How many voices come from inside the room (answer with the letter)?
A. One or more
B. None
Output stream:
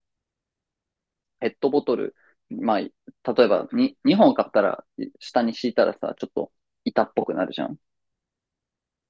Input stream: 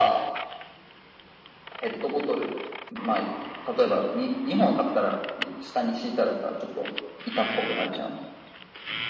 B